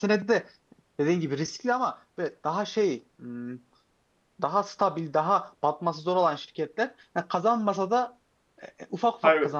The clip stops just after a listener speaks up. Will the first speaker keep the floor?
Yes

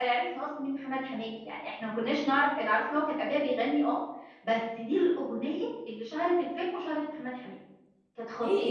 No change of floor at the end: No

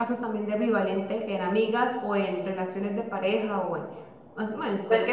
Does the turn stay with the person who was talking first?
No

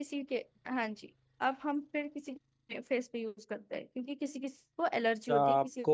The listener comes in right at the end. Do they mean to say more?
Yes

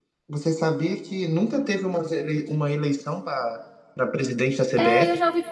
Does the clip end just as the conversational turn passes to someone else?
Yes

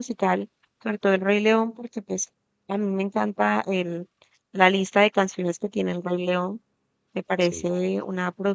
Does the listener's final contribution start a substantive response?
No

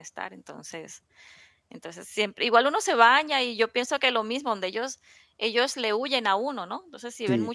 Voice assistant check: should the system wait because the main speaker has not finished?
Yes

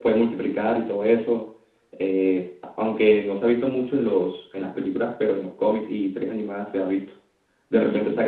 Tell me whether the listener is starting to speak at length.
No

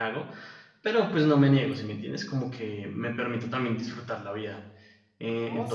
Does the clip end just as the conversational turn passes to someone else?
Yes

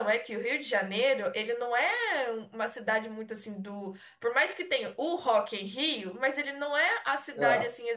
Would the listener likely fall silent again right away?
Yes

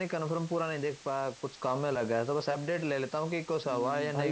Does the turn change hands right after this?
Yes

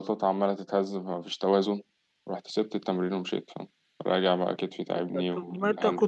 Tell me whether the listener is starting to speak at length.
Yes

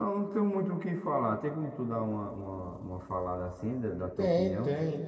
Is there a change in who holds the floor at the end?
Yes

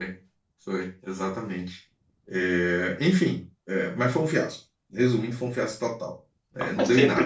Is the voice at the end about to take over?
Yes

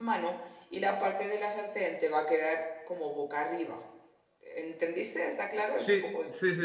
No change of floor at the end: No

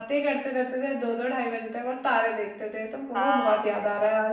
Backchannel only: No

